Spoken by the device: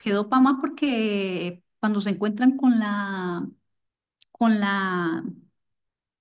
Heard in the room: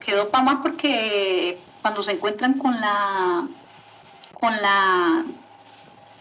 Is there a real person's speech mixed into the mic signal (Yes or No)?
No